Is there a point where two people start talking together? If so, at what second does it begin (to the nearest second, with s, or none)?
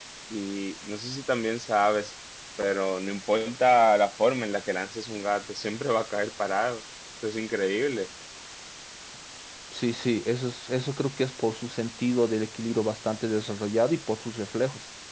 none